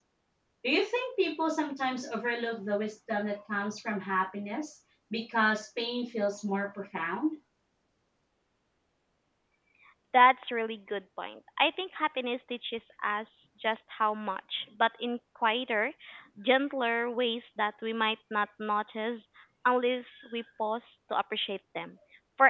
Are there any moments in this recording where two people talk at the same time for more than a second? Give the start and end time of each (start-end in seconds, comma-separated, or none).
none